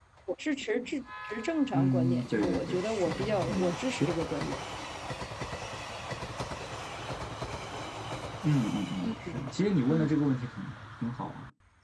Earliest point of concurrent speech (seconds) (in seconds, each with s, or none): 1.7 s